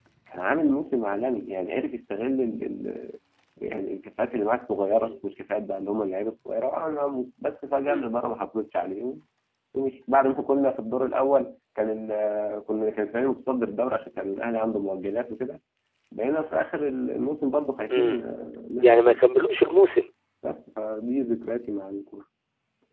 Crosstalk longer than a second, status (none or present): none